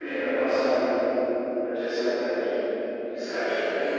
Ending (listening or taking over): taking over